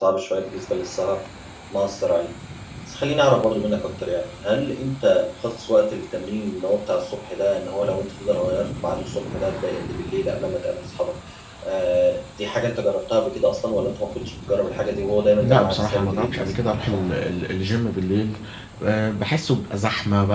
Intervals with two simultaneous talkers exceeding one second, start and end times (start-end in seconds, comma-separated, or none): 15.4-17.0